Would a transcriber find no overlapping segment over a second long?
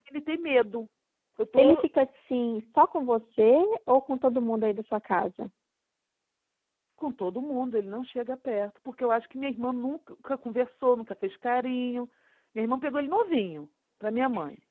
Yes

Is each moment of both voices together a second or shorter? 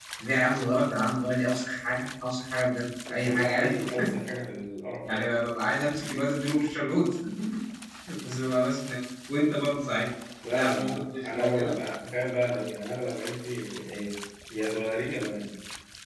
No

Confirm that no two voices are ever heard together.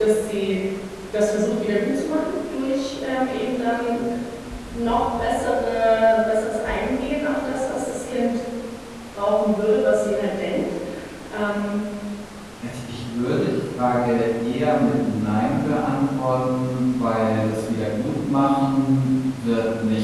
Yes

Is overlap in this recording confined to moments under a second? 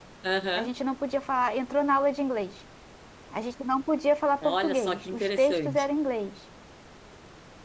No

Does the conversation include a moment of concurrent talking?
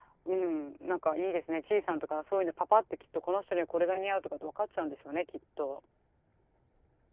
No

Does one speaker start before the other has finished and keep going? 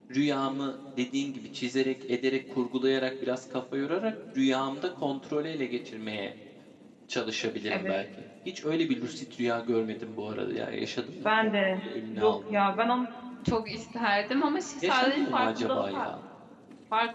Yes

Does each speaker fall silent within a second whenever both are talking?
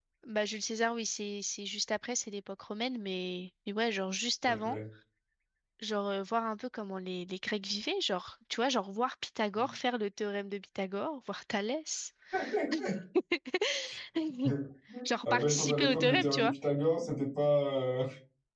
No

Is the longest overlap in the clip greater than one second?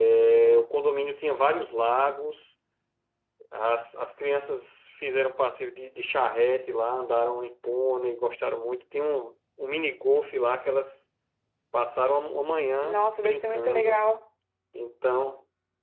Yes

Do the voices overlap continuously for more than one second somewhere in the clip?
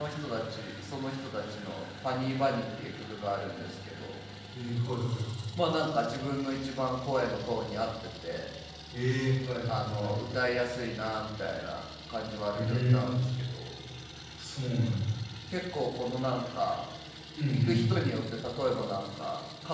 No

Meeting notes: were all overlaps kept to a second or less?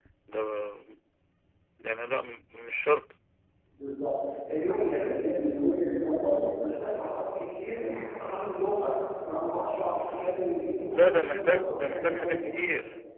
No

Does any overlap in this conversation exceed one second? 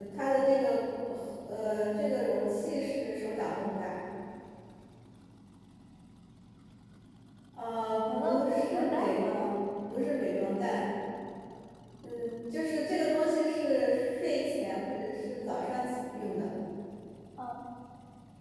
Yes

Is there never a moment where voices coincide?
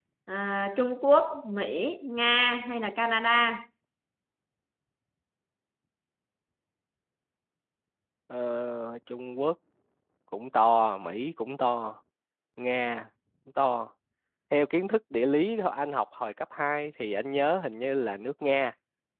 Yes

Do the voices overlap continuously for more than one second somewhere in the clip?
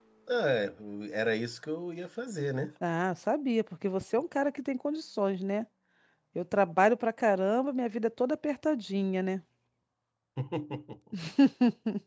No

